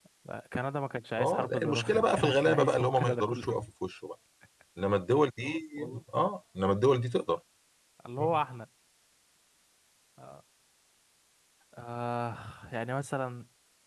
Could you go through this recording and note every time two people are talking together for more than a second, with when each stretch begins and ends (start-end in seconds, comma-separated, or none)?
1.2-3.5